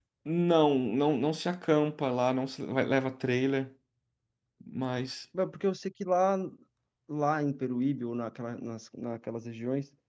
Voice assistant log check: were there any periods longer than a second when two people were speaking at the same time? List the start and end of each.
none

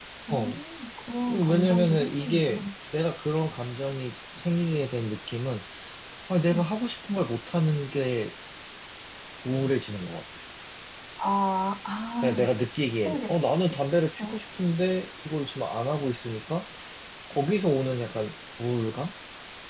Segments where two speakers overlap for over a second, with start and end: 1.3-2.7

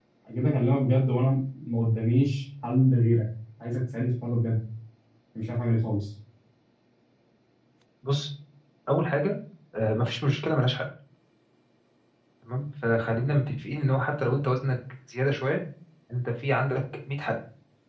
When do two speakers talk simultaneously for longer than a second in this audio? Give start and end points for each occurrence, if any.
none

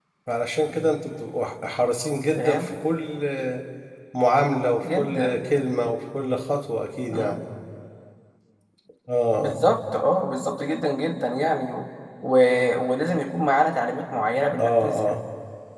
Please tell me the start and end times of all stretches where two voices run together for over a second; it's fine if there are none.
none

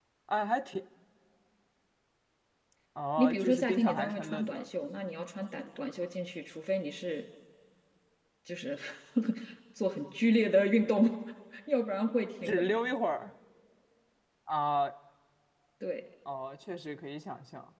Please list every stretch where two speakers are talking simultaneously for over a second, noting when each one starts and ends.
3.2-4.7

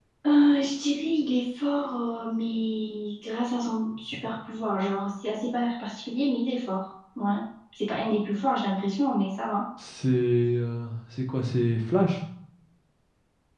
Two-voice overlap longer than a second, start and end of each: none

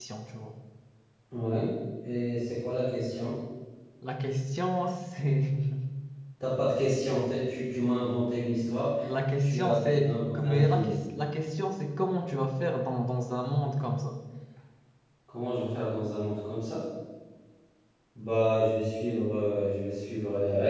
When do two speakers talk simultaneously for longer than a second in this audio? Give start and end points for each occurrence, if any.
9.4-10.9

